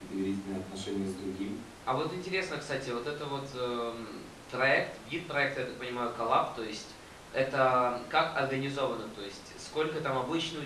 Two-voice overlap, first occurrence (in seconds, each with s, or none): none